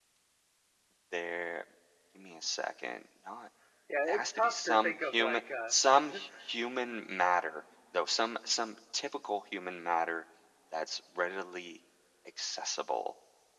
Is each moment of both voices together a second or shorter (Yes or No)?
No